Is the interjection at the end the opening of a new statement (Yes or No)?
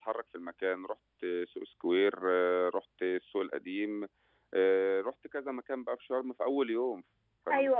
No